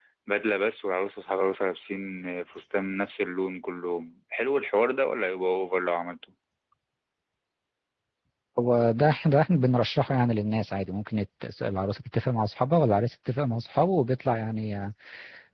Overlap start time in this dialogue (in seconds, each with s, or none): none